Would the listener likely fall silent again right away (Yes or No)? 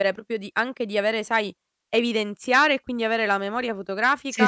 No